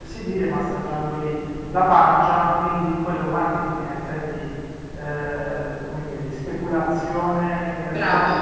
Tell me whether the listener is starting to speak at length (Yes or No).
No